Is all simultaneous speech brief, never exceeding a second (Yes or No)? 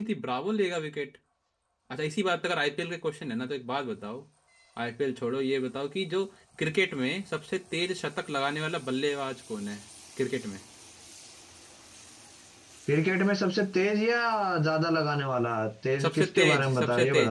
No